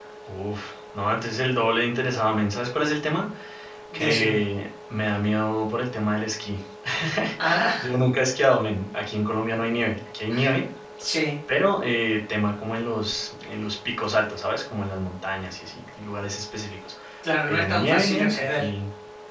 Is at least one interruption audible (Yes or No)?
Yes